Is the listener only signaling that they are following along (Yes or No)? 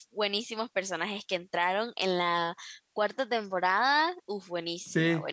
Yes